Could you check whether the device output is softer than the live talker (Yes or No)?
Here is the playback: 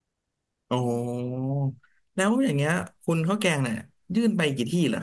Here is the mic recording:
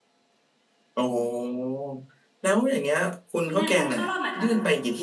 No